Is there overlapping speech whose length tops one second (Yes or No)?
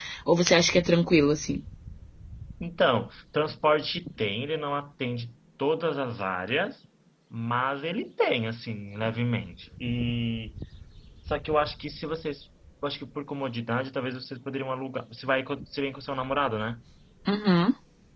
No